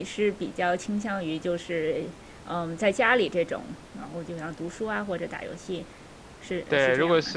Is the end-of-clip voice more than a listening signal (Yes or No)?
Yes